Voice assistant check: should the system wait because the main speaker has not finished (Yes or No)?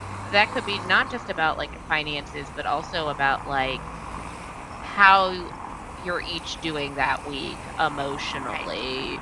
Yes